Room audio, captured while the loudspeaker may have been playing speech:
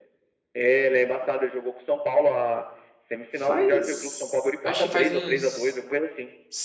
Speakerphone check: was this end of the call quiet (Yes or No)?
No